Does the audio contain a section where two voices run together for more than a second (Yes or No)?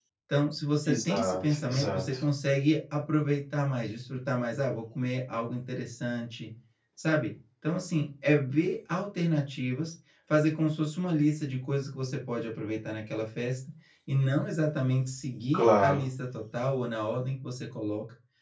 Yes